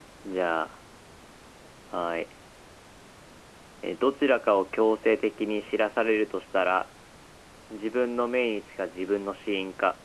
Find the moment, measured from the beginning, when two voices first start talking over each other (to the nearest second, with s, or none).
none